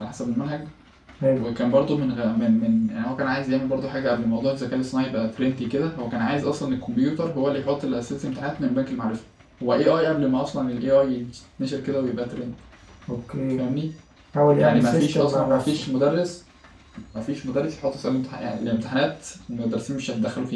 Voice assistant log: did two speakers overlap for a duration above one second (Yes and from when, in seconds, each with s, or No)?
Yes, from 14.6 s